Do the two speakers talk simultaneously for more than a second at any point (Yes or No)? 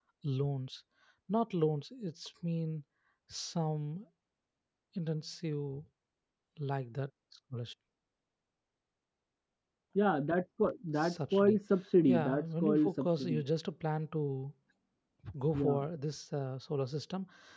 Yes